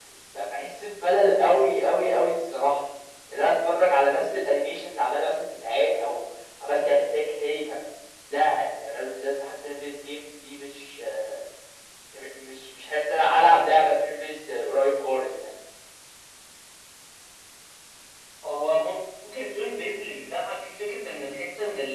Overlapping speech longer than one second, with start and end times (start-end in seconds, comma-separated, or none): none